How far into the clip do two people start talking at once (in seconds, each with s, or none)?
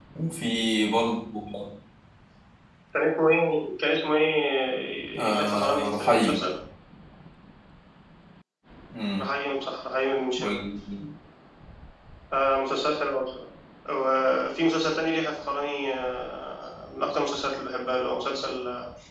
5.2 s